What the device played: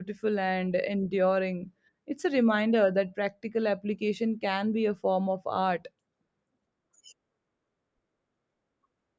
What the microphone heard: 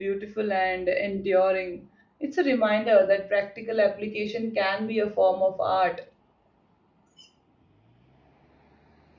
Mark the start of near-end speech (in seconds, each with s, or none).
none